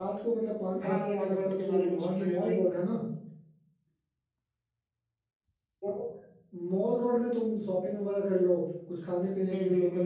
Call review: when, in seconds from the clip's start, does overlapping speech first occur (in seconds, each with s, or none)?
0.8 s